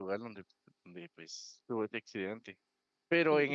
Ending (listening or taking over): listening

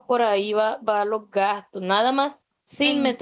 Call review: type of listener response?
listening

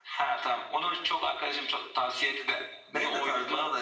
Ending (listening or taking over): taking over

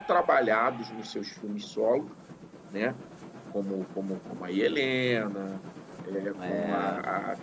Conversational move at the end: listening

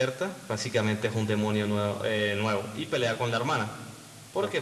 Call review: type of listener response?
listening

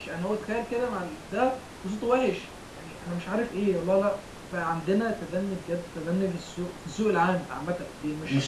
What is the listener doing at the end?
listening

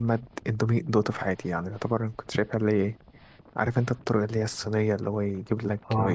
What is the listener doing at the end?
listening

